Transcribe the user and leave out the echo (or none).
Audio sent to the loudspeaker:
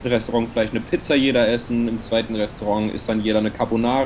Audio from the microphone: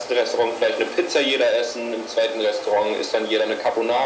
none